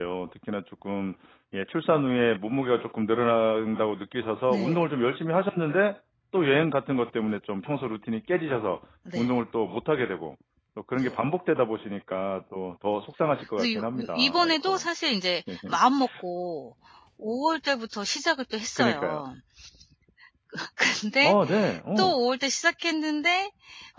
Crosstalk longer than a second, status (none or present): present